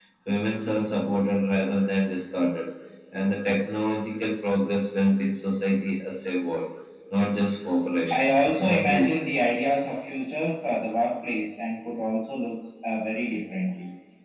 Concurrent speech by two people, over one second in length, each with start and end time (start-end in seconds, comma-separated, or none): 8.1-9.4